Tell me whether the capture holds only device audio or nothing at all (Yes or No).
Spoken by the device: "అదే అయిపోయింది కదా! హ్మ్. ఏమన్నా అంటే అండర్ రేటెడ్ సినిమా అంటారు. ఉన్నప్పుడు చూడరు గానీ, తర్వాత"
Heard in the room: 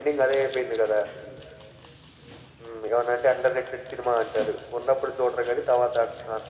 Yes